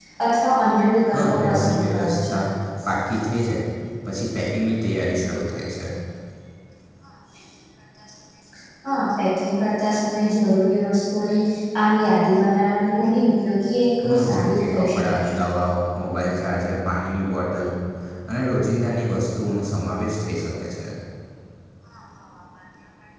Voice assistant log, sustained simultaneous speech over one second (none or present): present